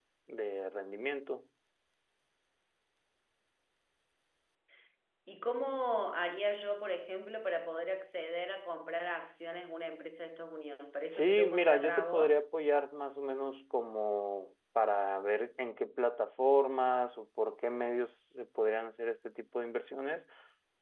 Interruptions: present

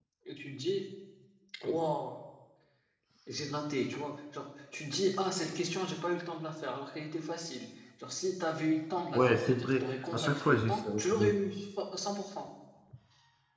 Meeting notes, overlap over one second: present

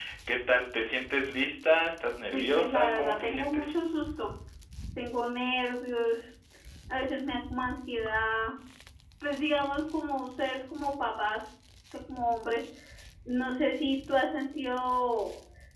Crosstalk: present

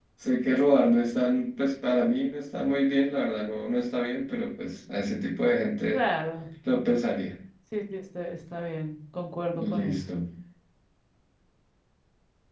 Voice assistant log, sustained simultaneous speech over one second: none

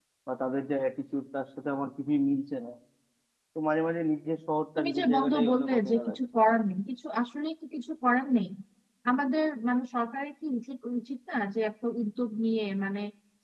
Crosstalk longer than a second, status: present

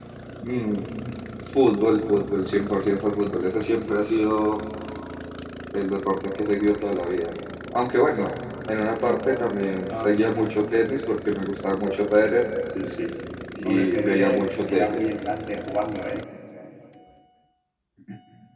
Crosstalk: present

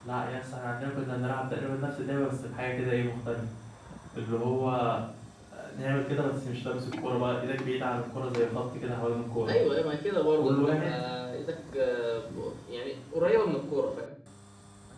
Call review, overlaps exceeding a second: none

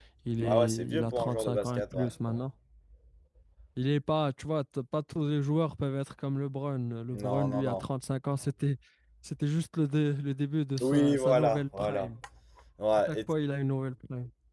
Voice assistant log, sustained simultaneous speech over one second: present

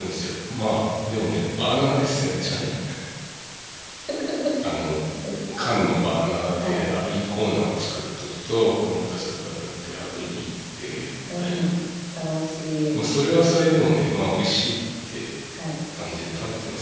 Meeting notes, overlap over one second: none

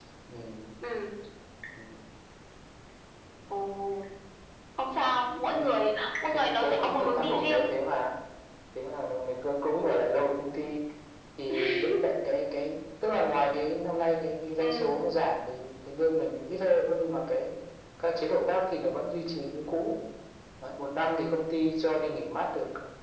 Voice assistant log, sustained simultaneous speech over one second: present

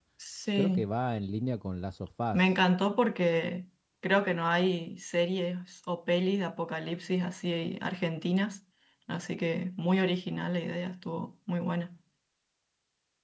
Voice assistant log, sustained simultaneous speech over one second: none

